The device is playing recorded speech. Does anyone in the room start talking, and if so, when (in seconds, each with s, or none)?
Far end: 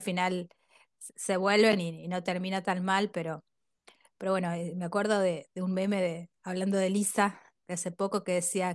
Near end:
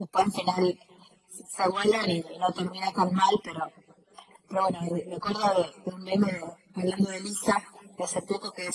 none